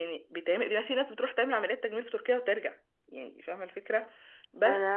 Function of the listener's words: listening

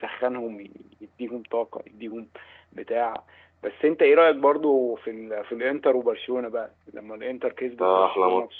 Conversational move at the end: taking over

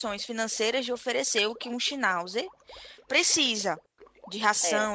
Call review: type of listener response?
listening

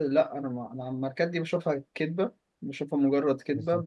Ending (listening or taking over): listening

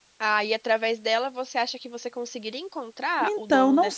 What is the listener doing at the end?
taking over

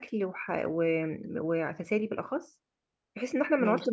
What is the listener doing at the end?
listening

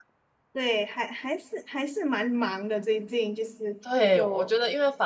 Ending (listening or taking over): taking over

